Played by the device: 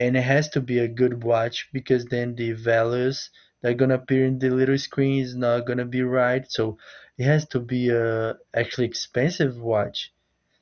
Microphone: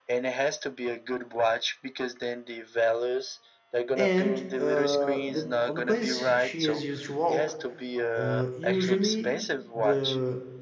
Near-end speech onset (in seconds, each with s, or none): 3.9 s